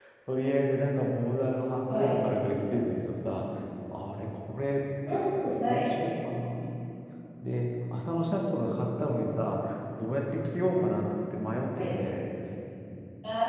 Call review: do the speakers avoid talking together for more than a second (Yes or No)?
Yes